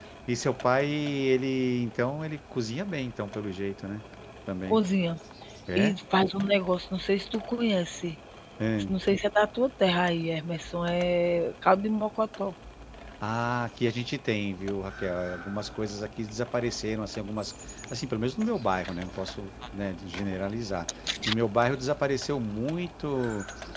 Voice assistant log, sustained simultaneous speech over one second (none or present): none